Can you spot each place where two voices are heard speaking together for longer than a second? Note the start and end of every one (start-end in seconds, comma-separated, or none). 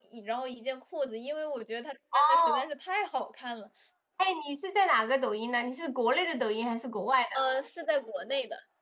none